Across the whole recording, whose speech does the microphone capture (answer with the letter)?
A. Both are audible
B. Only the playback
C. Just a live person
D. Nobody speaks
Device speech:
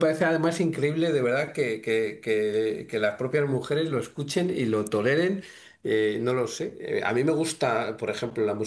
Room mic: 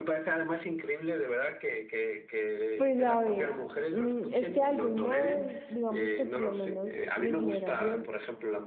A